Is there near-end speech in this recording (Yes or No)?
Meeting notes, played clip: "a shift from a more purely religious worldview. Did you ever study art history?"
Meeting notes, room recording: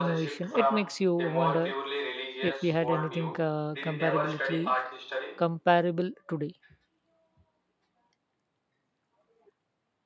Yes